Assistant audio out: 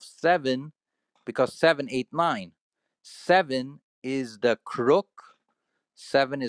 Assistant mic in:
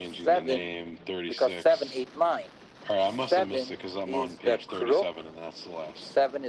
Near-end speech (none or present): present